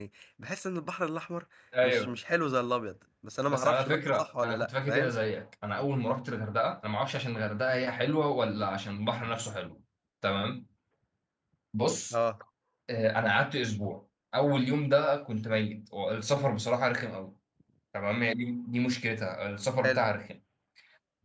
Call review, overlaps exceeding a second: present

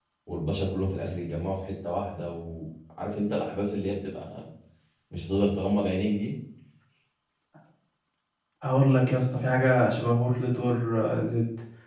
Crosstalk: none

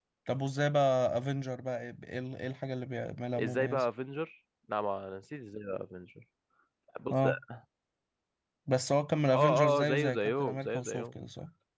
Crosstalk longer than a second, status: present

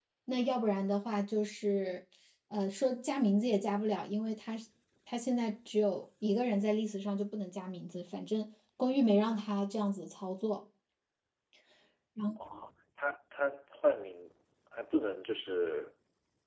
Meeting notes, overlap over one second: none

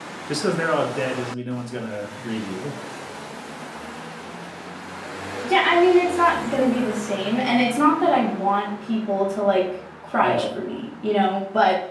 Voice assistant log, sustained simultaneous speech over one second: none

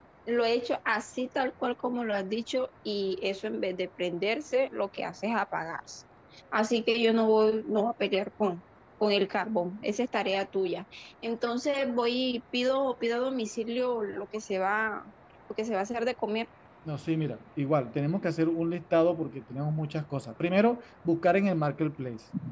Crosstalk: none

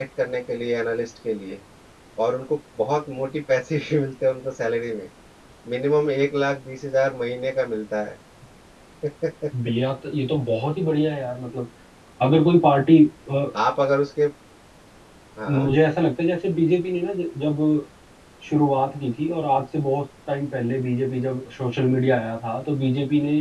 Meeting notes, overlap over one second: none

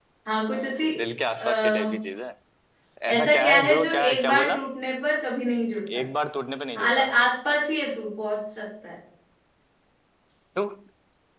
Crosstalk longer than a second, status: present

